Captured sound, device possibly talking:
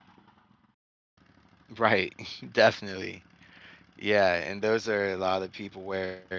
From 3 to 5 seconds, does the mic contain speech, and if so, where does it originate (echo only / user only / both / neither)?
user only